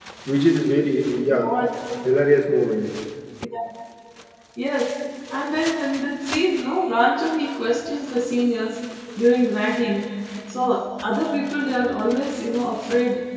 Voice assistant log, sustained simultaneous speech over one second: none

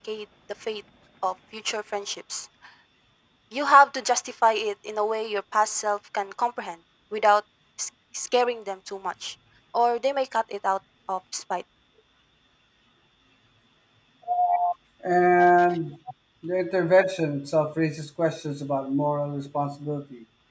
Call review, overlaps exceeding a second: none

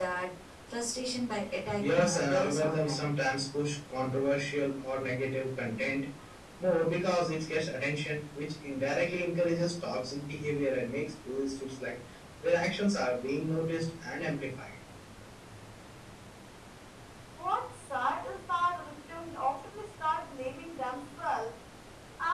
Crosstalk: present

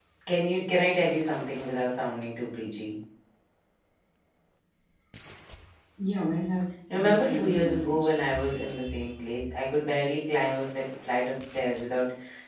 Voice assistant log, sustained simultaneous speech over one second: present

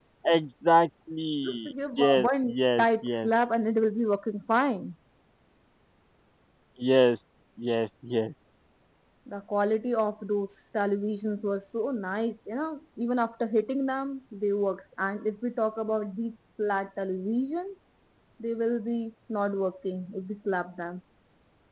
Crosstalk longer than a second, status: present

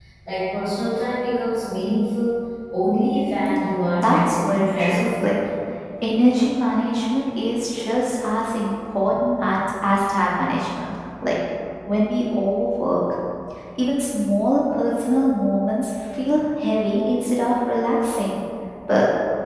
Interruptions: present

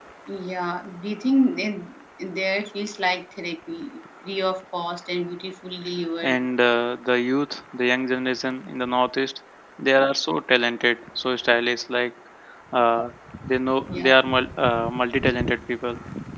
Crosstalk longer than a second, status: none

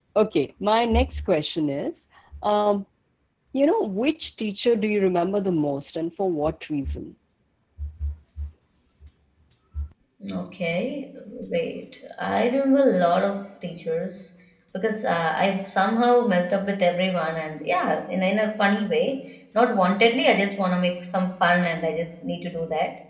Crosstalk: none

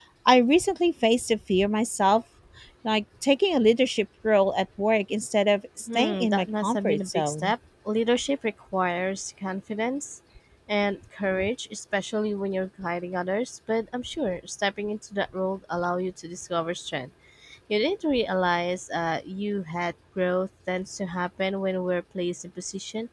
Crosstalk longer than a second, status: present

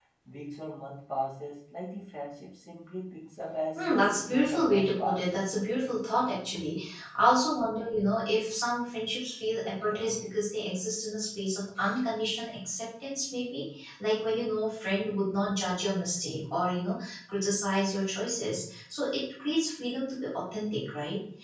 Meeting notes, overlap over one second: present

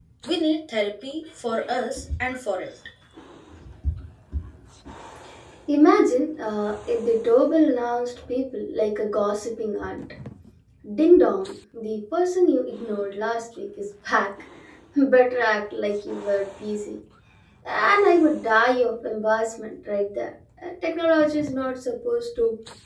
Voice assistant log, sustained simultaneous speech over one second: none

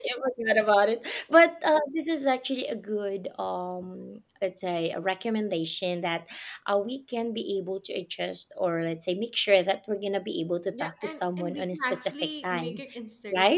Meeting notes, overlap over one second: present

